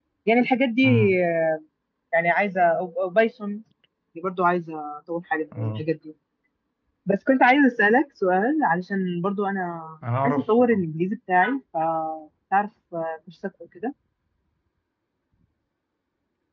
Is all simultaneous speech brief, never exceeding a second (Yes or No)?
Yes